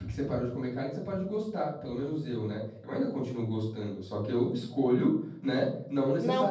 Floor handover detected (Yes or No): No